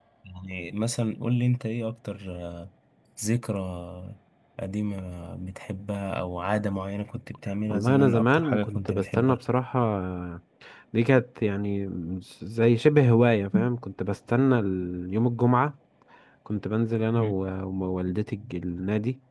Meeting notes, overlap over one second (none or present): present